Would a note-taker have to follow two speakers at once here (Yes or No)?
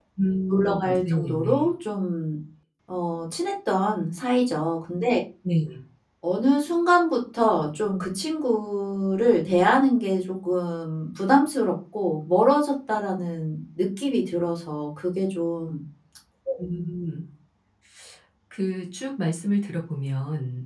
Yes